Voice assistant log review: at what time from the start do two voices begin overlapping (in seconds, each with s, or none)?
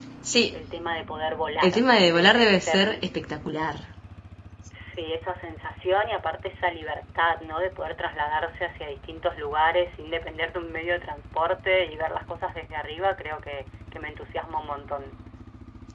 1.6 s